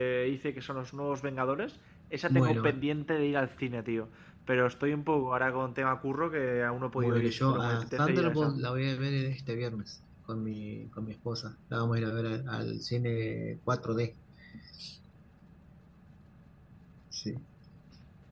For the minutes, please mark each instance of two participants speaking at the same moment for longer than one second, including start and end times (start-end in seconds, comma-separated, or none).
7.0-8.5